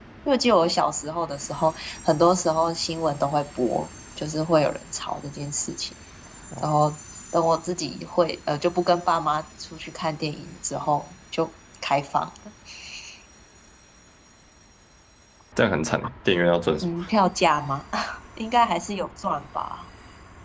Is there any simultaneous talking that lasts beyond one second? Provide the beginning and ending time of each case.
none

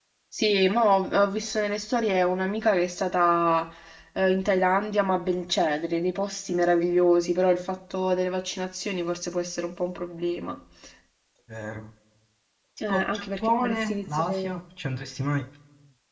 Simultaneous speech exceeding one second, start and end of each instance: 12.9-14.6

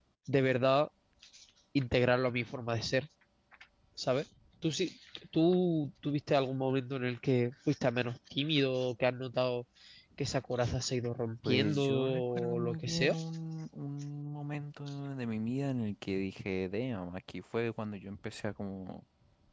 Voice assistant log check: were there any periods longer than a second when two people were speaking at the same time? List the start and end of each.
11.4-13.1

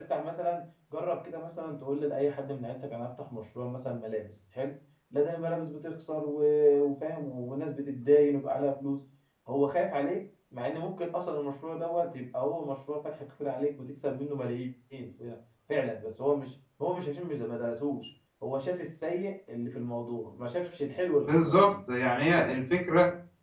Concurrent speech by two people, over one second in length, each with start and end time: none

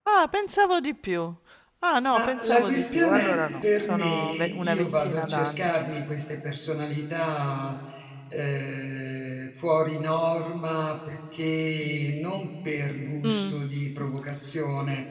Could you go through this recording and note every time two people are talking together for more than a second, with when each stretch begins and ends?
2.1-5.7

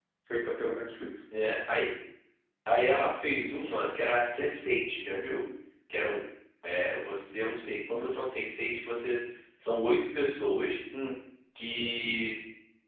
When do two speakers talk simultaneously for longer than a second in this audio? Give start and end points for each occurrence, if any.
none

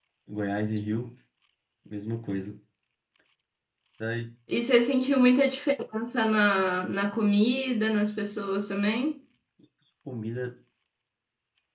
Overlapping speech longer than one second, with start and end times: none

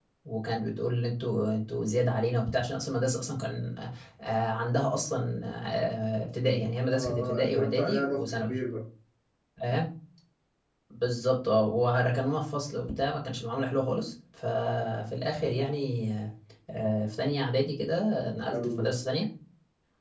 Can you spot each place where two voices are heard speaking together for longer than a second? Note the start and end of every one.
6.9-8.6

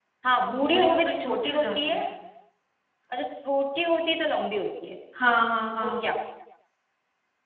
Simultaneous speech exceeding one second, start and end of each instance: 0.6-2.0

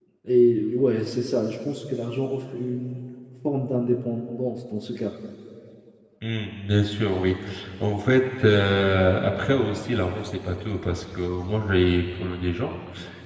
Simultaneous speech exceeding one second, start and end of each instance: none

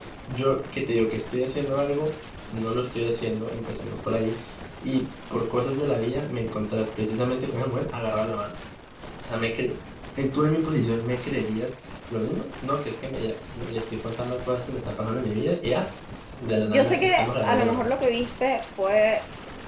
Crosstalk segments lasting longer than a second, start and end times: 16.6-18.0

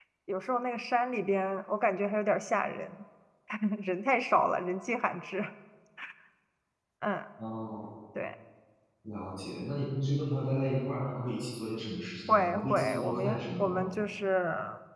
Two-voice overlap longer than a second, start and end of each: 12.3-13.8

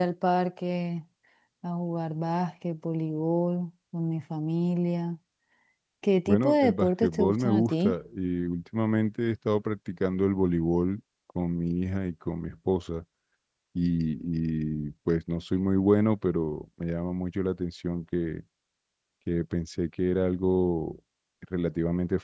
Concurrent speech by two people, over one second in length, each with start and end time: 6.3-7.9

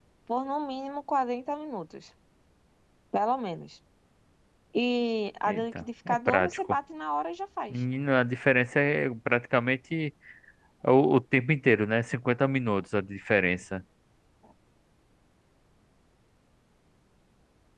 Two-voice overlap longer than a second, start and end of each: 5.5-6.8

